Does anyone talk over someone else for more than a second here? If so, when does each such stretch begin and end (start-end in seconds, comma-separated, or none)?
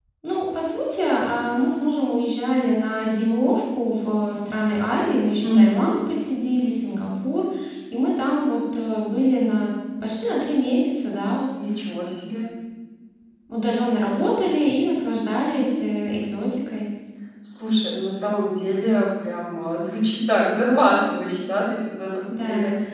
none